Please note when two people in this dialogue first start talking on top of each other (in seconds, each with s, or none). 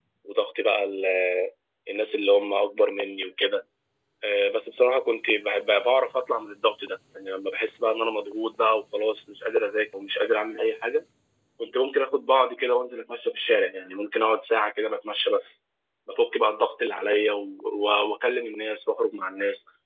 none